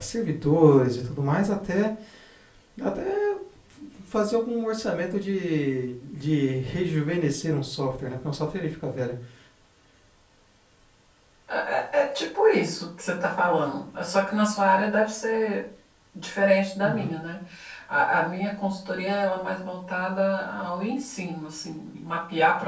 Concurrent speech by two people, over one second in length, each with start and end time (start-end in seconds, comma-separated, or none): none